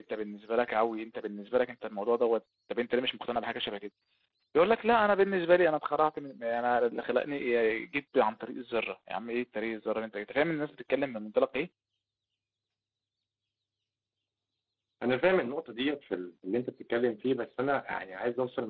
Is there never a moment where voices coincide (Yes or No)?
Yes